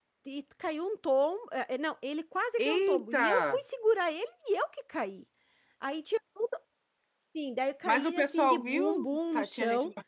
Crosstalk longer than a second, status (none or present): present